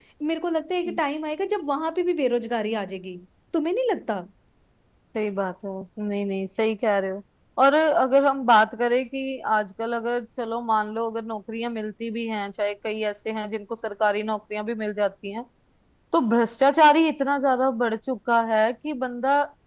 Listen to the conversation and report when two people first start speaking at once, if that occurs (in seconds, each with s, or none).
none